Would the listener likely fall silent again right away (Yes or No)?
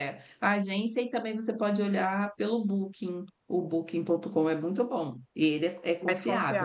Yes